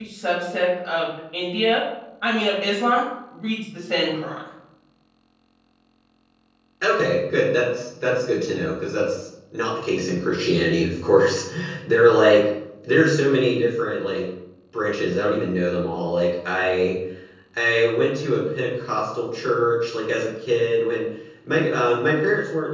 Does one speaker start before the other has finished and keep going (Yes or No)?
No